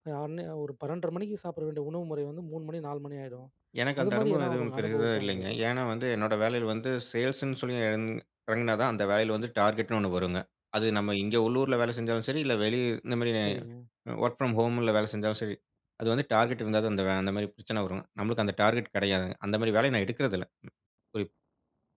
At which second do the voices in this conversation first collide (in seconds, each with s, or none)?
4.0 s